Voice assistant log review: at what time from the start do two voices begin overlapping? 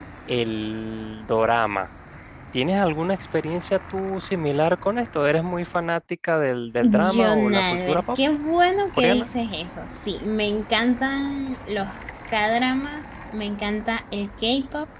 6.8 s

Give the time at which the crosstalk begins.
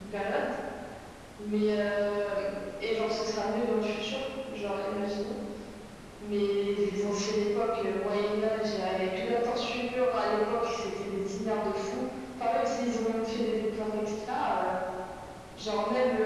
none

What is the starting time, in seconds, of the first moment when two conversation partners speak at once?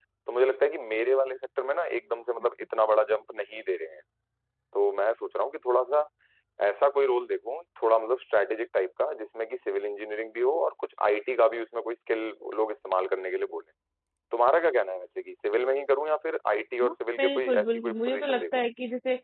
17.2 s

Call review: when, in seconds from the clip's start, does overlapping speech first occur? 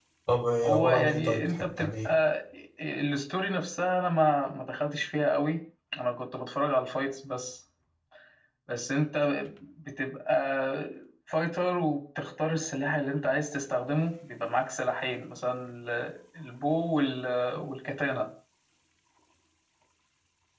0.6 s

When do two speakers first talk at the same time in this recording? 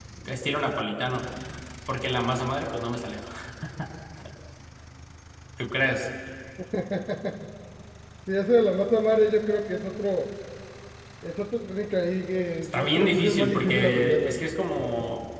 12.7 s

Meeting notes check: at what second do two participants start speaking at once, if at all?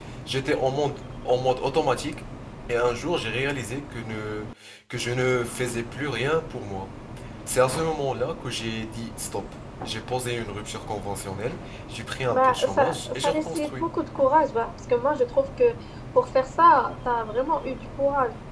12.3 s

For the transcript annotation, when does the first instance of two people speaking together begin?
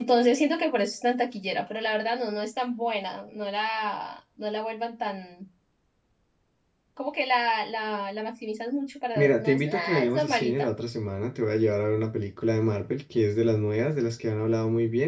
9.2 s

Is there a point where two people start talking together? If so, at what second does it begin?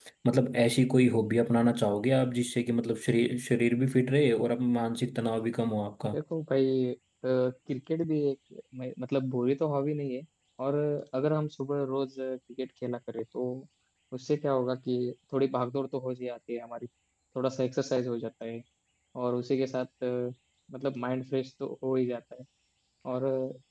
none

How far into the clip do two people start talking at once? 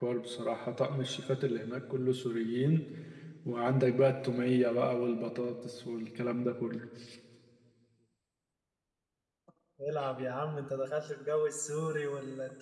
none

